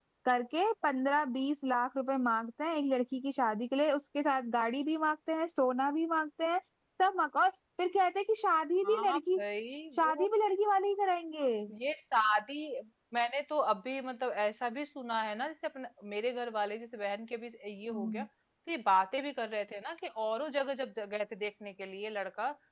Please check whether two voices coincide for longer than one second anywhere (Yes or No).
No